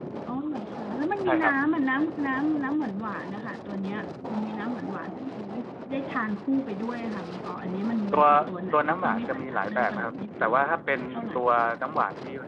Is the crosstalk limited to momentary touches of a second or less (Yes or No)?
No